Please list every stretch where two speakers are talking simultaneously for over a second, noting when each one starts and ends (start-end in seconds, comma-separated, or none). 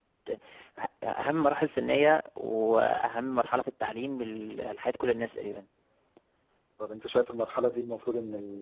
none